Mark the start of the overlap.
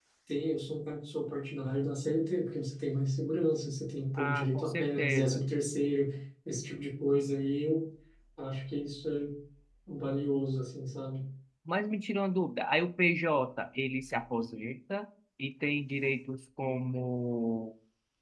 4.2 s

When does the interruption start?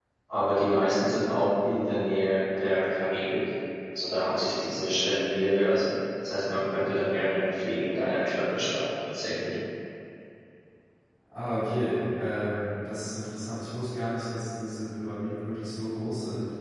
none

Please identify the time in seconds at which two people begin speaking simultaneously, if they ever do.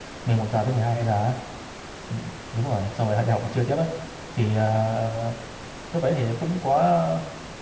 none

